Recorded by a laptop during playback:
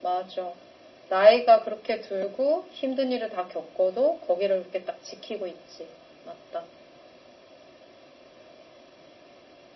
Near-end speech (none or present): none